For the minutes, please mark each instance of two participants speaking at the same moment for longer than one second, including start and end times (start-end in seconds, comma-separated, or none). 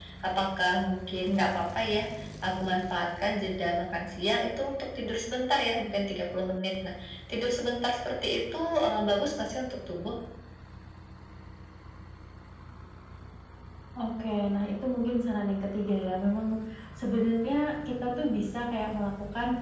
none